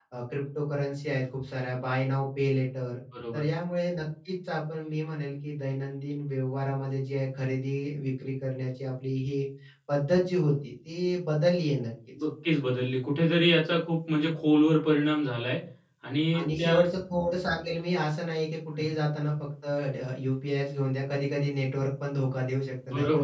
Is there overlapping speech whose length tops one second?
No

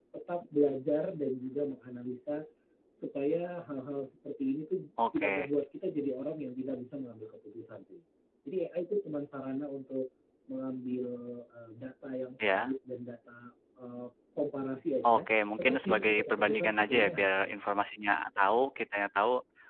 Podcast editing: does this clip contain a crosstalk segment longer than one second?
Yes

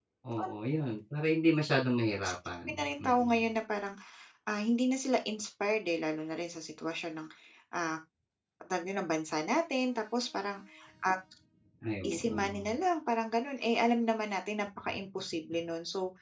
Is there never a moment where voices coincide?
No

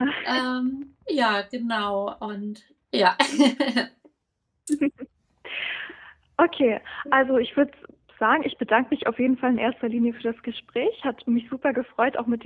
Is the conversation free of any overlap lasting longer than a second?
Yes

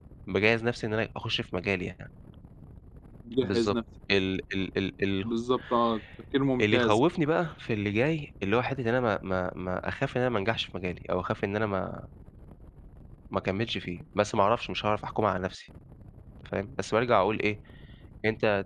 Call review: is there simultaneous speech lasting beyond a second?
No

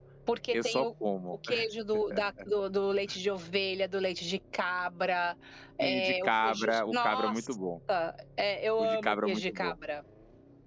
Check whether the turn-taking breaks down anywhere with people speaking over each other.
Yes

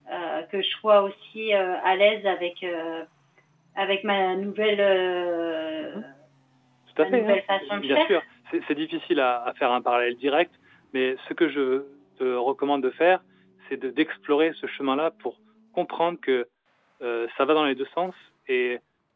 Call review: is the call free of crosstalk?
No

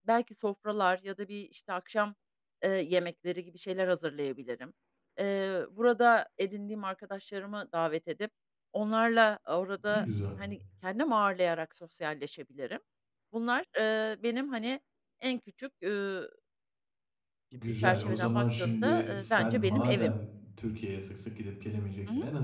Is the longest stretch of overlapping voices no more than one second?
No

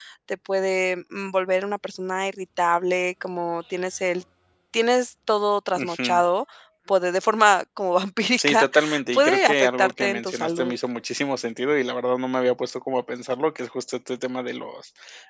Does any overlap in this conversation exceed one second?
Yes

